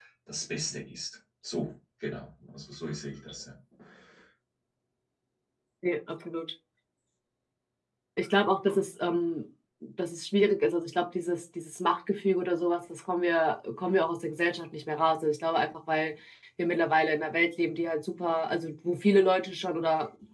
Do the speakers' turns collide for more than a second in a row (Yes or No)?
No